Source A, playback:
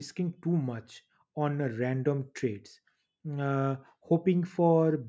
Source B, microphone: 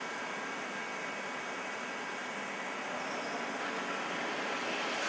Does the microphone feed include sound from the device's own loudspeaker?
No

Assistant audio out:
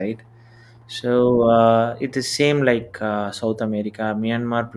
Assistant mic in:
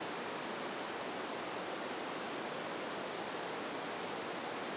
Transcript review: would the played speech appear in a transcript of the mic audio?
No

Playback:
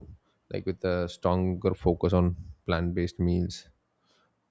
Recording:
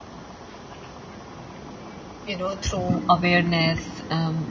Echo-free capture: Yes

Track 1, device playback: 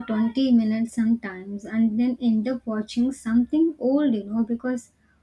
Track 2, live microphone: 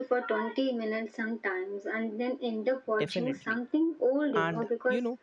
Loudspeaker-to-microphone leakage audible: Yes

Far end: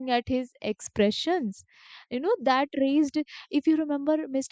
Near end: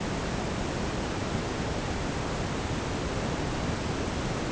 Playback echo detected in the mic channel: No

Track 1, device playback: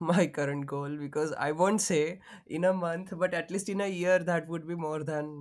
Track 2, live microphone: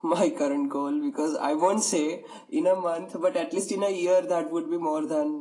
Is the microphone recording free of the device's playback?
No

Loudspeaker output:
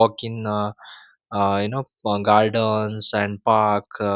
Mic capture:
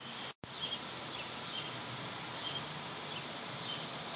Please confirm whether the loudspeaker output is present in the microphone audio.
No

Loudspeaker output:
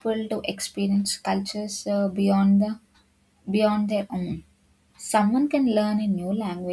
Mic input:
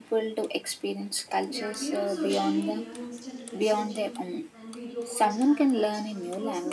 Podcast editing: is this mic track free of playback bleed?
No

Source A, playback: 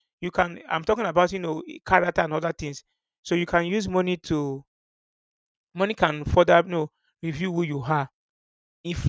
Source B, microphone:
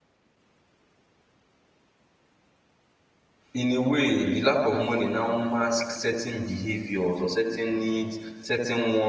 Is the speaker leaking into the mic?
No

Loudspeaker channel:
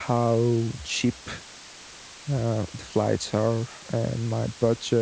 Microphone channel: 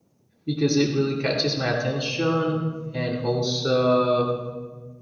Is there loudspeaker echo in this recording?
No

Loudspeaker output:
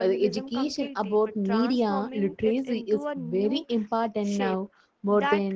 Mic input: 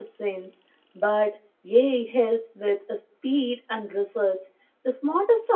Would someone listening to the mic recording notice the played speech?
No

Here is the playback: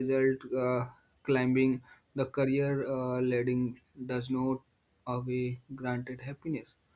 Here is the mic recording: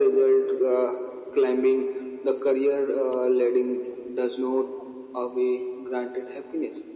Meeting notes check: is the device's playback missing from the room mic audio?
No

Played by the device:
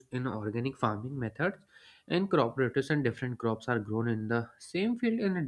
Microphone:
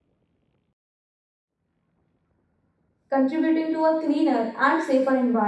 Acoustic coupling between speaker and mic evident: No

